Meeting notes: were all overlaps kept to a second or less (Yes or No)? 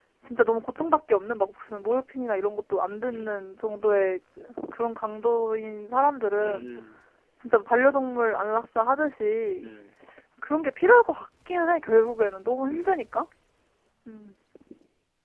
Yes